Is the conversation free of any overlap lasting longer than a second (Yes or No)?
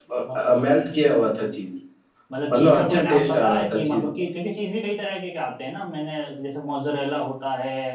No